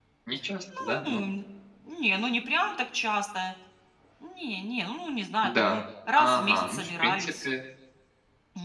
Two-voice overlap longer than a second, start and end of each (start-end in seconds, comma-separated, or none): 6.2-7.5